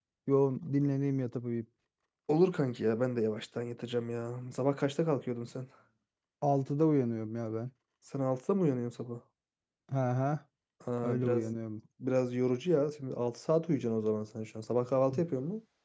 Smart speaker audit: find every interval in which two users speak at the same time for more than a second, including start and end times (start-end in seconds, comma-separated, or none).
none